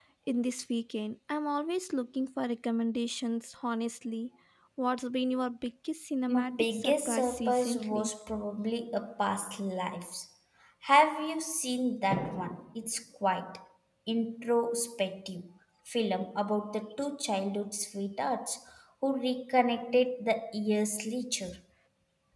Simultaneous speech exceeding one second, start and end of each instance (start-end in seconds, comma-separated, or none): 6.3-8.1